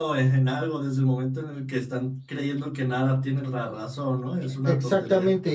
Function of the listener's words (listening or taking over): taking over